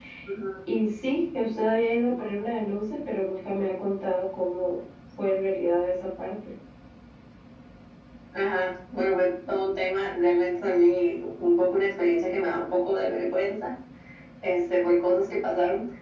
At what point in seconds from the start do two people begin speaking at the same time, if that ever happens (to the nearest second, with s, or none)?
none